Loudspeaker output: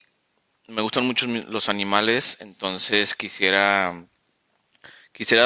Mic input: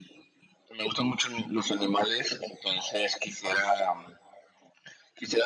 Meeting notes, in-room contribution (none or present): none